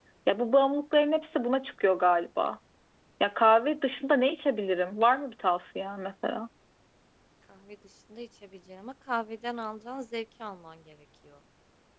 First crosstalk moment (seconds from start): none

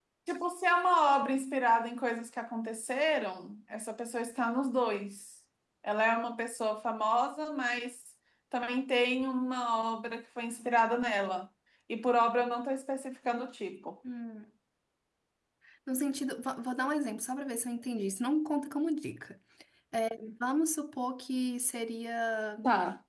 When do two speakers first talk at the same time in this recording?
none

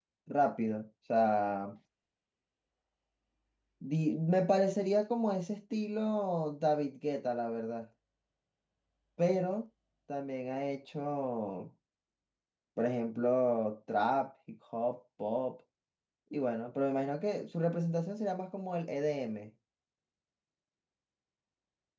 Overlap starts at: none

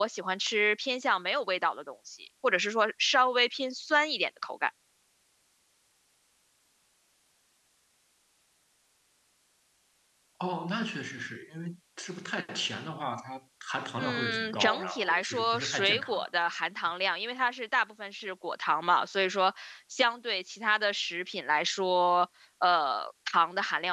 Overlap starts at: 14.0 s

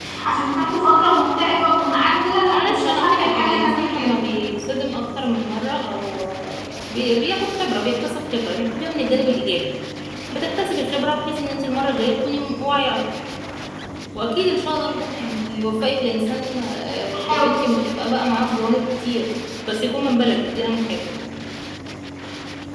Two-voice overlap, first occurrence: 2.5 s

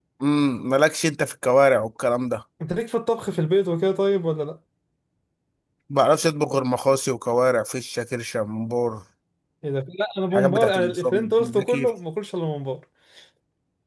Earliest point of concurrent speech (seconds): 10.3 s

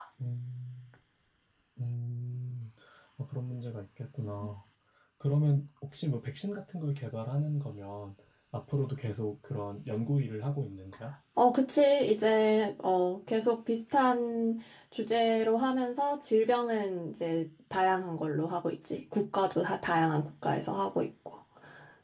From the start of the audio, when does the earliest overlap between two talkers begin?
none

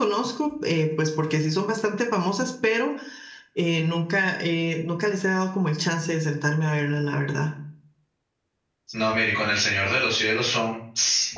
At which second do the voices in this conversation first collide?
none

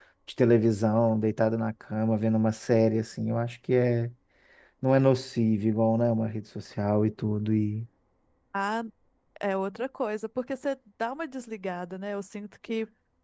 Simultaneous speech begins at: none

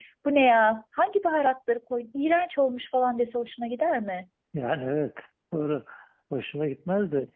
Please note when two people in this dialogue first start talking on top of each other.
none

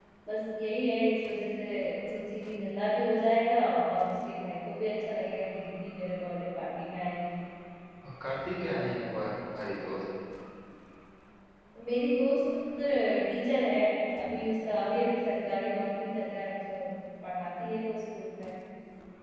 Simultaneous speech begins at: none

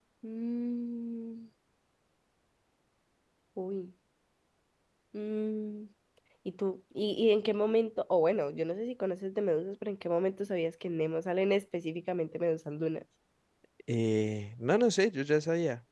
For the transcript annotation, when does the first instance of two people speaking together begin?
none

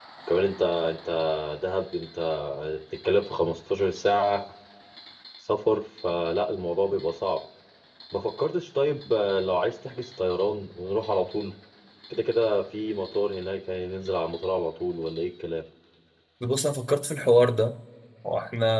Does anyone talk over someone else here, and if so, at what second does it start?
none

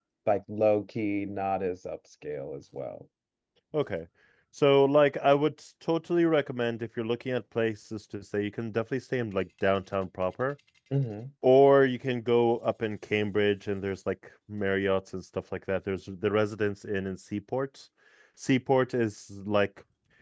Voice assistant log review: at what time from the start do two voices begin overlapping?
none

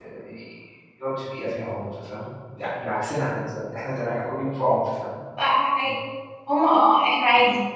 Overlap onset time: none

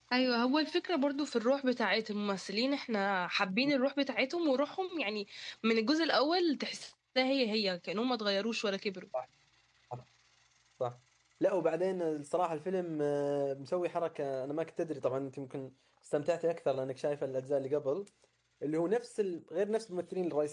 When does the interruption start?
none

